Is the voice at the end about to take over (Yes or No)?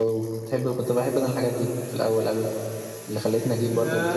Yes